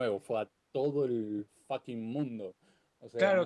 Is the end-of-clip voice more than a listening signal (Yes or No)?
Yes